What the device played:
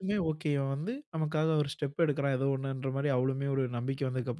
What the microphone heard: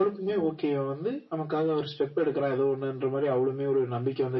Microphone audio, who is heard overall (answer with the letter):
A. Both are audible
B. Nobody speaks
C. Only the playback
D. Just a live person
C